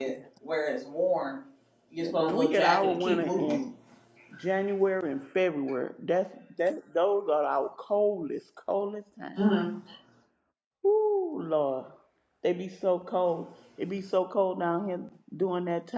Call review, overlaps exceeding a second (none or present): present